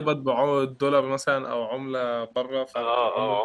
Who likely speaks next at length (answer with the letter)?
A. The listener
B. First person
A